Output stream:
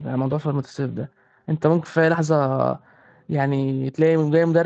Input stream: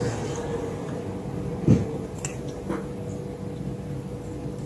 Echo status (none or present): none